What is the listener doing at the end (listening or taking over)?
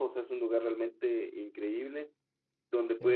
listening